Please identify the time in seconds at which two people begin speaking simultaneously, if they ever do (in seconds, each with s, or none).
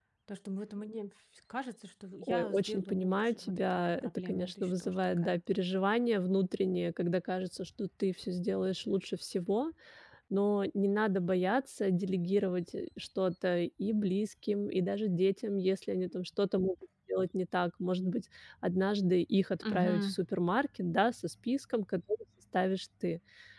2.2 s